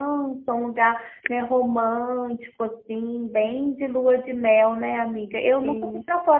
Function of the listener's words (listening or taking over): listening